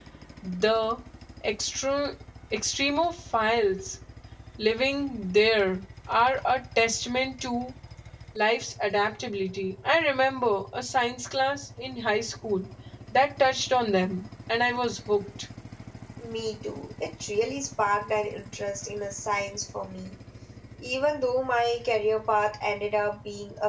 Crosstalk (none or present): none